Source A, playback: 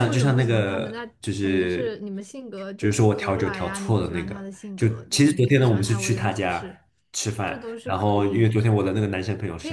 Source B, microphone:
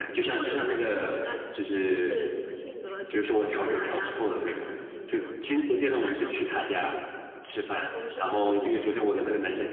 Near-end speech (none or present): present